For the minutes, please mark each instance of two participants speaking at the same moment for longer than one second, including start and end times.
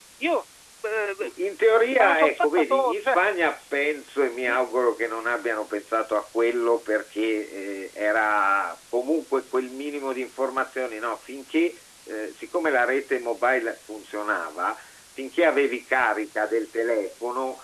1.9-3.2

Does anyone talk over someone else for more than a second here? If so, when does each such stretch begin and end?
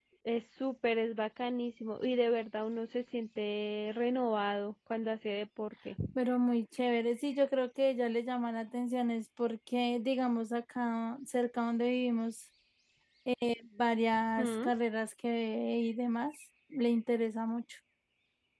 none

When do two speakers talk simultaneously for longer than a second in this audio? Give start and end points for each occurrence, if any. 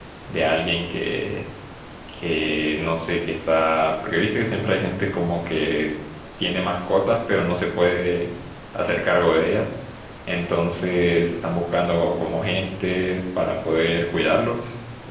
none

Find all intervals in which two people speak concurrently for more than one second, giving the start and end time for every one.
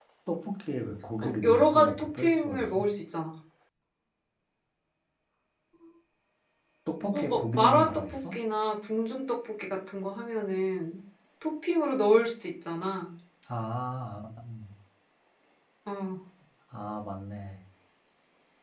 1.2-2.8, 7.1-8.3

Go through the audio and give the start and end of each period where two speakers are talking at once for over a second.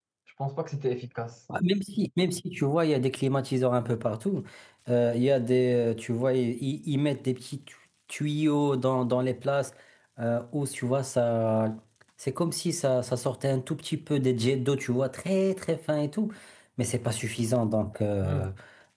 none

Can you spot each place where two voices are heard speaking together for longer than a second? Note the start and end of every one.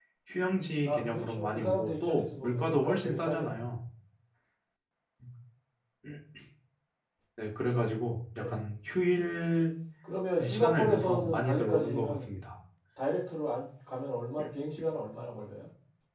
0.8-3.6, 10.4-12.2

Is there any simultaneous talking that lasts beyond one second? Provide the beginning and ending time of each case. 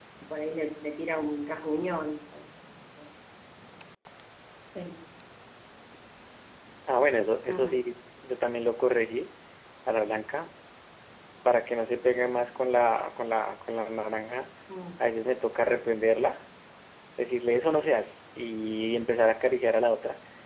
none

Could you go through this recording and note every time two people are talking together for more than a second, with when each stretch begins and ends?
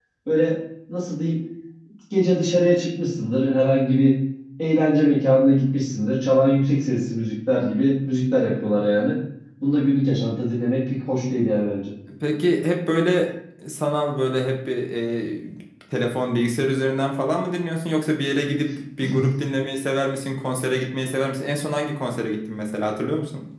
none

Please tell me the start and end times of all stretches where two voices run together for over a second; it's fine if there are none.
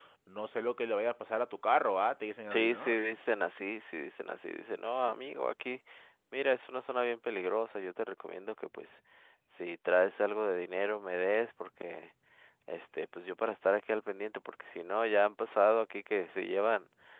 none

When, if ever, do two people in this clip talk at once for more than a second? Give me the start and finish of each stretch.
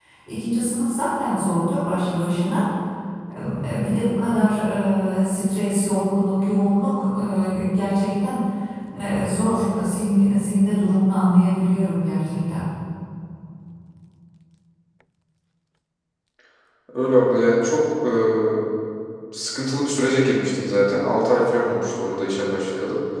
none

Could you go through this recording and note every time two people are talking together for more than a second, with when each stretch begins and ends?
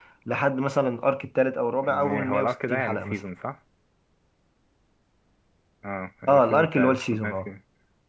1.8-3.2, 6.3-7.5

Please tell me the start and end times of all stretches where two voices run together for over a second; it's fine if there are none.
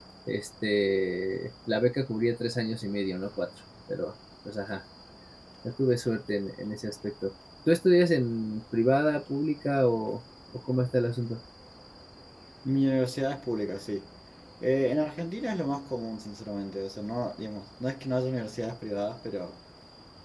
none

